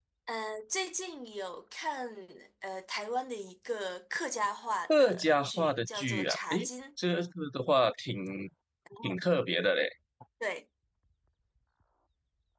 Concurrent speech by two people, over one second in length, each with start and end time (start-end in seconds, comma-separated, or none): 4.9-6.6